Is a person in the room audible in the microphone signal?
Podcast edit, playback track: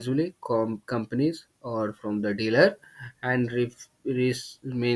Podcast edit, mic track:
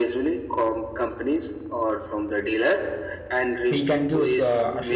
Yes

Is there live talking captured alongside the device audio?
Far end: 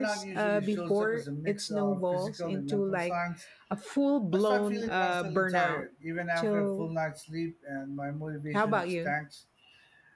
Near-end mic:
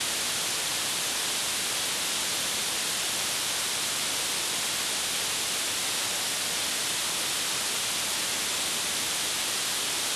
No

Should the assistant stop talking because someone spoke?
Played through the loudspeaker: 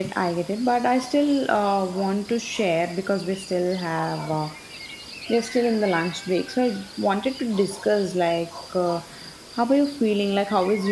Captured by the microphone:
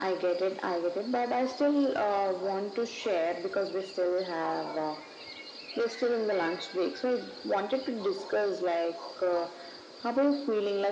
No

